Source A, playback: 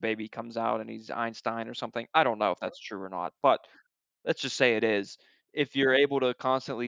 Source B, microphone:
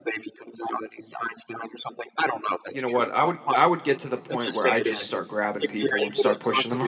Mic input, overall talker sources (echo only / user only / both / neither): both